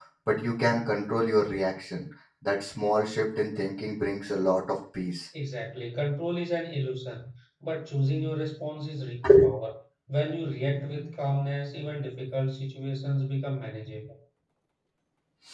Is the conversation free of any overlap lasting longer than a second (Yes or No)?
Yes